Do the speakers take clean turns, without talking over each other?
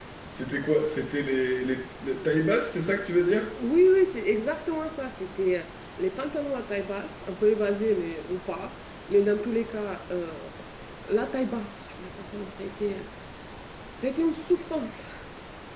Yes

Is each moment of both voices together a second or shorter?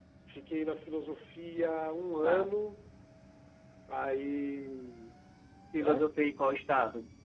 Yes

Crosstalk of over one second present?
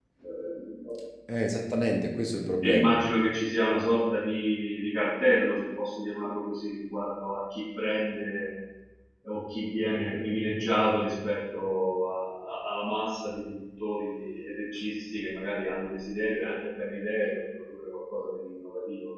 No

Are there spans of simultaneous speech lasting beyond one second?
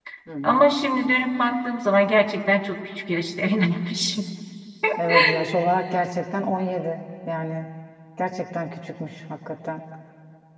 No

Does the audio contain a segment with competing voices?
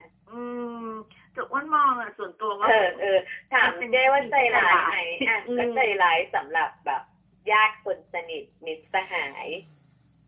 Yes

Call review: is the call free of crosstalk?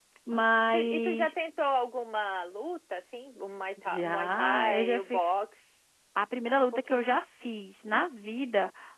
No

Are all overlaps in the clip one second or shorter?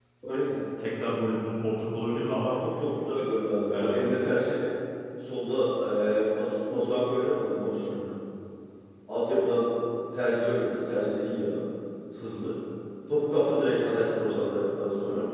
Yes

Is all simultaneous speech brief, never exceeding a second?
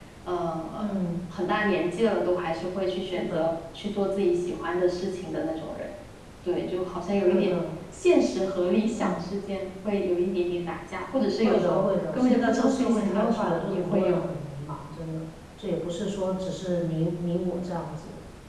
No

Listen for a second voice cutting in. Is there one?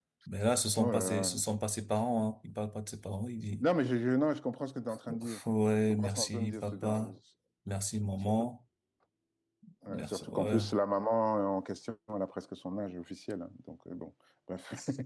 Yes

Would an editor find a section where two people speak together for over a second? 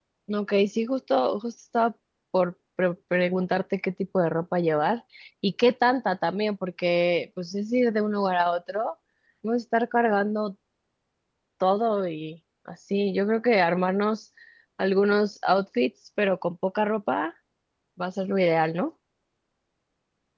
No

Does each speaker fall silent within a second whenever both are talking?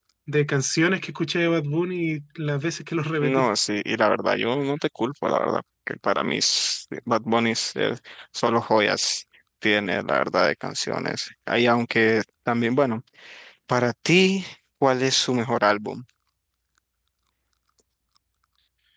Yes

